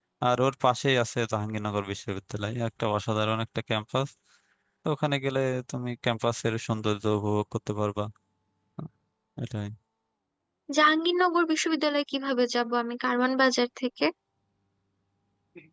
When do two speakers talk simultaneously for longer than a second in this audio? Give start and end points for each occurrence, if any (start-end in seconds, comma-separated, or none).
none